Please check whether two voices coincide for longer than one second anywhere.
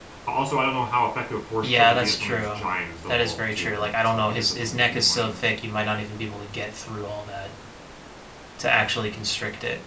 Yes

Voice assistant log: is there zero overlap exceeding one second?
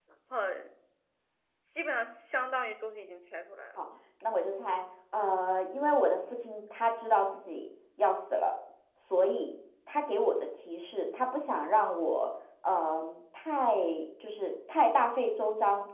Yes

